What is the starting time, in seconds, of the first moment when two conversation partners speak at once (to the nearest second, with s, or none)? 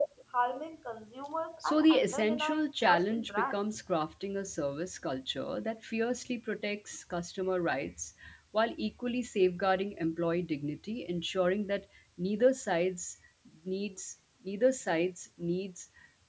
2 s